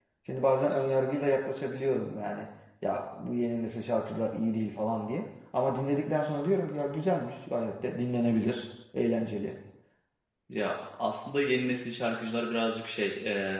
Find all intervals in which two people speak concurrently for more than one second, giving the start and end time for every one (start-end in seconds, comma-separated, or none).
none